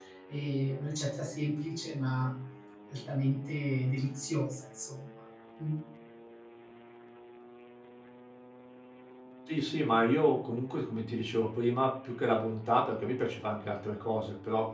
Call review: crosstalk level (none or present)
none